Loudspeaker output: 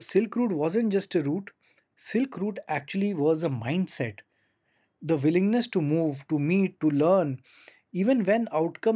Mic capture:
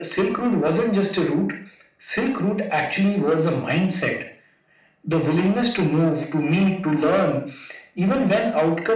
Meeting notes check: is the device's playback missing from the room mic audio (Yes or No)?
No